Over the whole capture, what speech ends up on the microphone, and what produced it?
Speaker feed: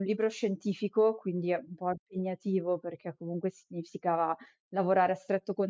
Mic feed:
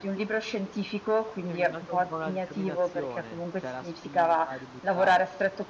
both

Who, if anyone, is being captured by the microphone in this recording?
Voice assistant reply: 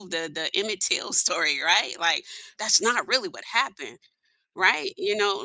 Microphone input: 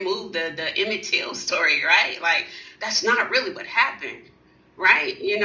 echo only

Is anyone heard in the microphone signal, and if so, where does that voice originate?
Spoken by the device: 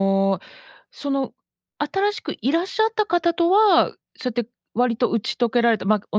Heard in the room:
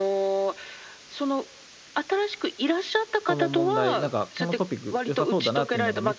both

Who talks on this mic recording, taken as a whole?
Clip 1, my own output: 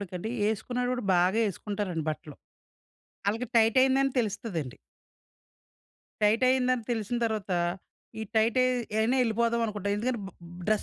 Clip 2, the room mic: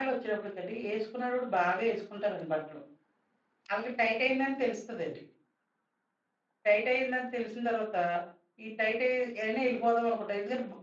echo only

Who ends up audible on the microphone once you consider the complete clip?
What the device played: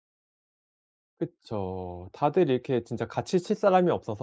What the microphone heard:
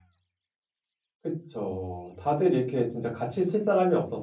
echo only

